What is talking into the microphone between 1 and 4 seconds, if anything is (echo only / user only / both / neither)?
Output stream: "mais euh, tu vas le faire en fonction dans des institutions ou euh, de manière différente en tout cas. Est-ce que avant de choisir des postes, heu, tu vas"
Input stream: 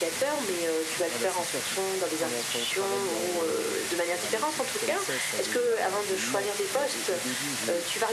both